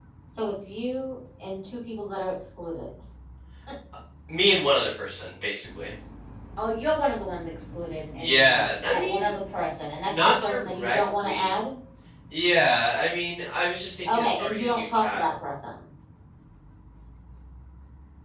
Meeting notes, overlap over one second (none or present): present